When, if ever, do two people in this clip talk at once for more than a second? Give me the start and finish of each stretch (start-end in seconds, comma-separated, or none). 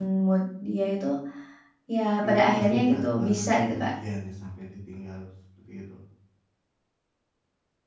2.2-3.9